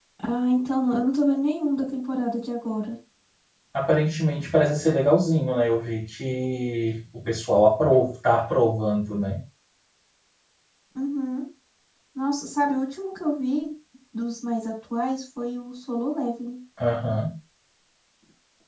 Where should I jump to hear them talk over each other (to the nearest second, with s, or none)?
none